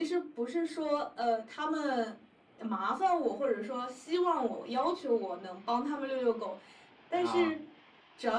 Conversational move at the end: listening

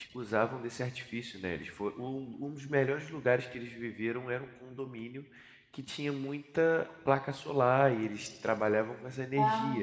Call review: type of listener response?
listening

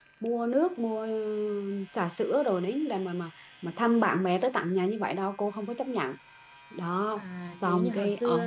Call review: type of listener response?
taking over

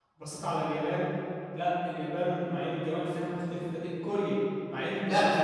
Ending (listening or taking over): taking over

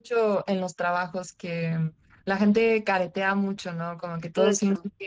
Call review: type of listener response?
listening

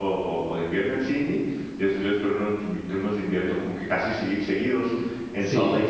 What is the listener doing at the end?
listening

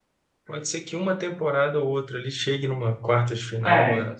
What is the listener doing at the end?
listening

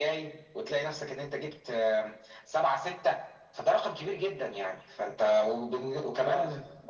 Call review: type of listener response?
listening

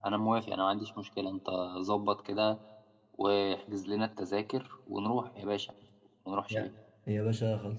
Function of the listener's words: taking over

